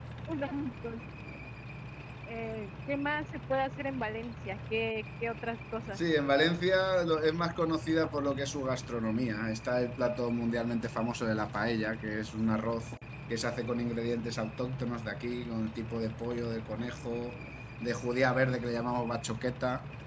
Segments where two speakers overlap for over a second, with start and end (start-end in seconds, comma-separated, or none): none